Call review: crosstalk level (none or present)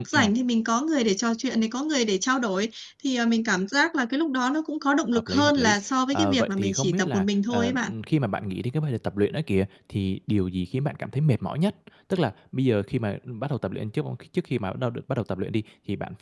present